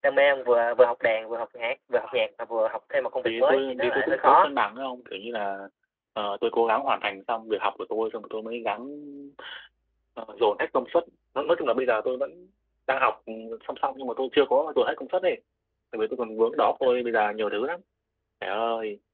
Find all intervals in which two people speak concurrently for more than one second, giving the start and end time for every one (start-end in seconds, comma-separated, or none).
3.2-4.5